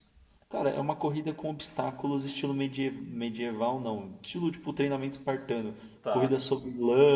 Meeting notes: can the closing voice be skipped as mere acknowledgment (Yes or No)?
Yes